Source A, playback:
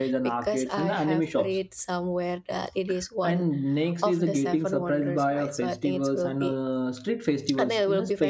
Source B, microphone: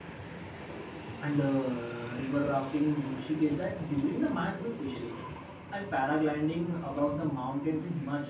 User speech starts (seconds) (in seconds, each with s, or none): 1.2 s